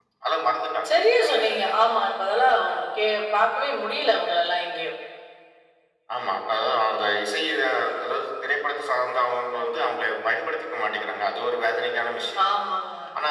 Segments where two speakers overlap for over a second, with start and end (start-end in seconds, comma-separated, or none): none